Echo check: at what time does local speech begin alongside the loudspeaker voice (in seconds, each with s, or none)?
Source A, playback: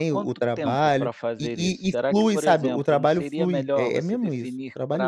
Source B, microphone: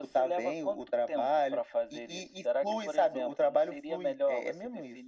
none